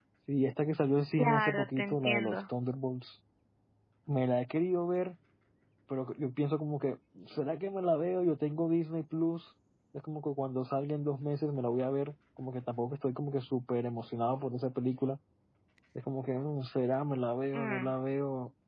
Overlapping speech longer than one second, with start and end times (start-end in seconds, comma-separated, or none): 1.2-2.4